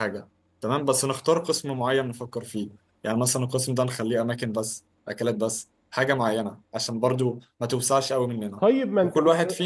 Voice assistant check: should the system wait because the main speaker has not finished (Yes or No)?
No